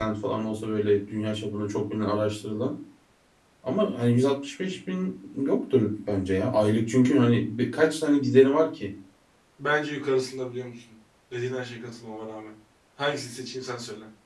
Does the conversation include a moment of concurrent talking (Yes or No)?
No